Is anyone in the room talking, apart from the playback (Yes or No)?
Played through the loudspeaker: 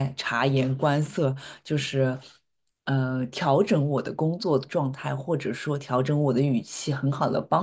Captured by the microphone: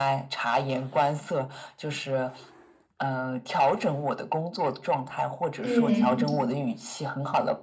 Yes